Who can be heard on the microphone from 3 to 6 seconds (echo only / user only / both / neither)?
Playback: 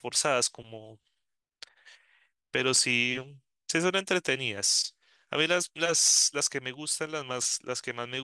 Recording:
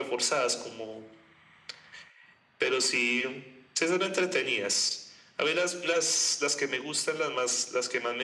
echo only